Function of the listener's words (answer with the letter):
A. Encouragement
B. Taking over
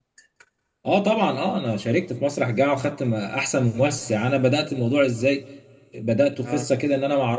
A